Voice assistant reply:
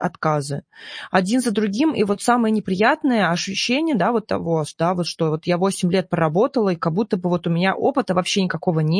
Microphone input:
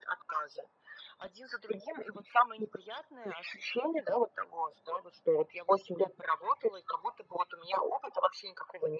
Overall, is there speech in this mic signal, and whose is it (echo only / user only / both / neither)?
echo only